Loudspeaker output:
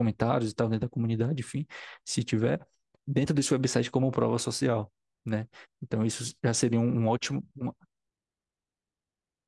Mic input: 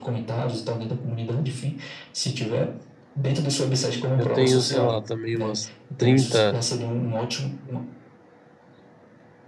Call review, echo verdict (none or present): present